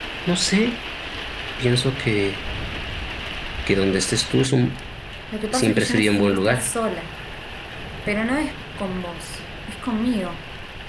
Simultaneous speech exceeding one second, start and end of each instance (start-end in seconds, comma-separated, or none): 5.5-6.7